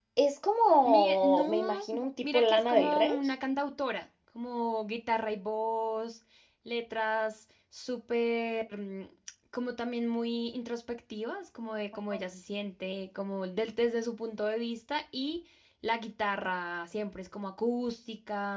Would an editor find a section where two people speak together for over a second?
Yes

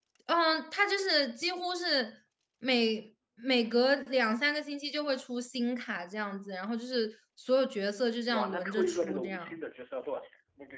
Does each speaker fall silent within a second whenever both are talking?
No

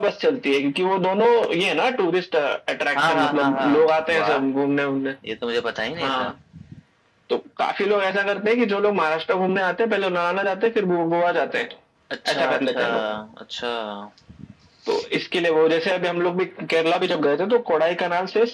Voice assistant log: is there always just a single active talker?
No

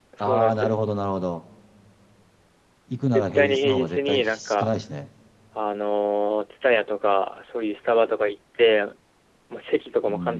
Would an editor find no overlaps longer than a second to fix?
No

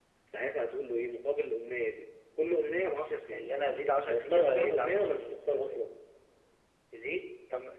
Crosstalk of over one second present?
Yes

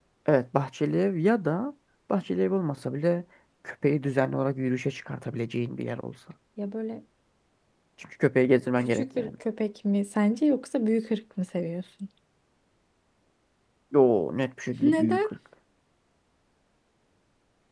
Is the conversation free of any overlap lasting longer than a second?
Yes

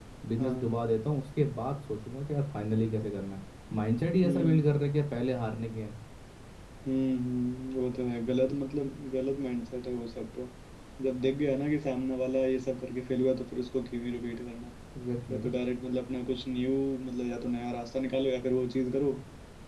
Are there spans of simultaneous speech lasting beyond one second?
No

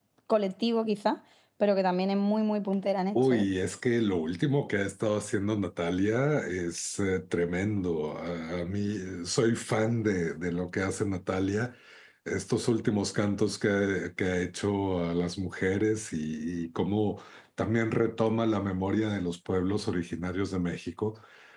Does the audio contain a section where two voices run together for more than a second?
No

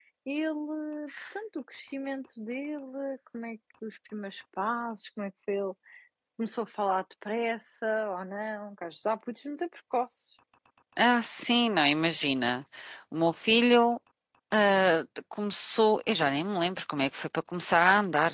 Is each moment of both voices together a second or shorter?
Yes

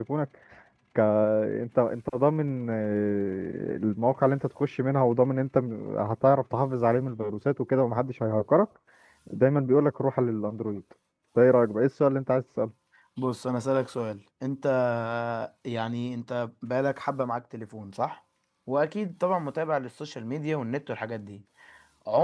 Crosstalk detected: No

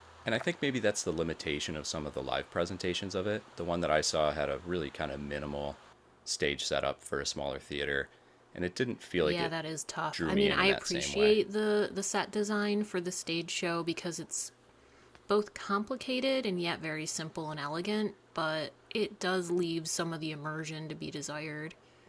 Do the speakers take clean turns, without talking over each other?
No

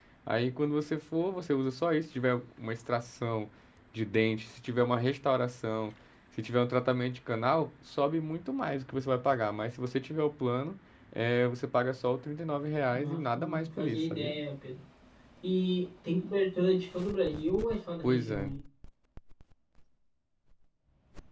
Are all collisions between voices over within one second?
No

